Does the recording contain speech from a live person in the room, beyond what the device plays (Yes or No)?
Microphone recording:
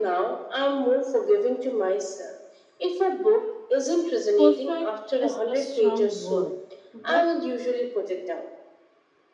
Yes